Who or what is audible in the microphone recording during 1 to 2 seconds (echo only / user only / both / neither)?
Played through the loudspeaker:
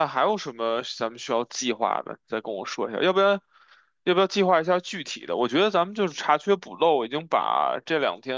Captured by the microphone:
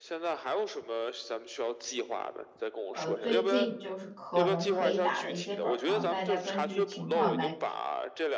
echo only